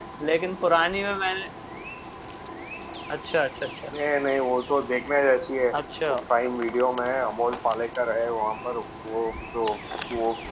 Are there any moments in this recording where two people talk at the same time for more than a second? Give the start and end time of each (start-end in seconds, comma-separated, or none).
none